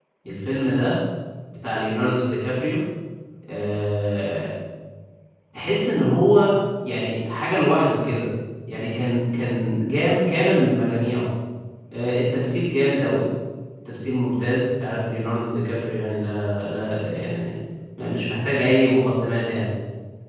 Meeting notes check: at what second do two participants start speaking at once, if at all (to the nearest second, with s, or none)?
none